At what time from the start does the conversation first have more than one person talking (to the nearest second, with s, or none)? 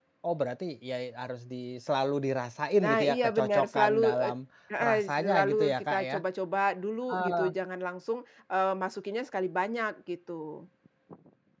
3 s